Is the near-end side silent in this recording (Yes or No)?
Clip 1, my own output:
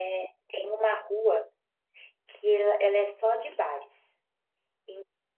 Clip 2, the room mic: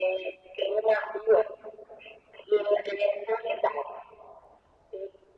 Yes